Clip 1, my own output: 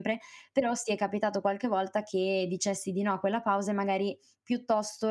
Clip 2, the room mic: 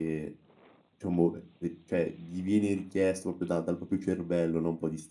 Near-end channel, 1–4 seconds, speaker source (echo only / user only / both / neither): user only